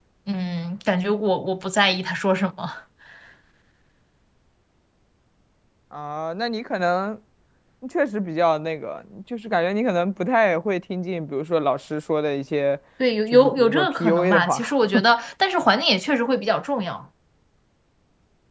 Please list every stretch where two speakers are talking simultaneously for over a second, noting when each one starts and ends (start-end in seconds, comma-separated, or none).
13.3-14.6